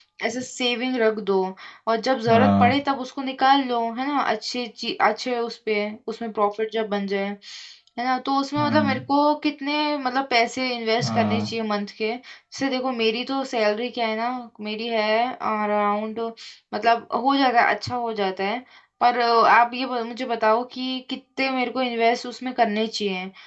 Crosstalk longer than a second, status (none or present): none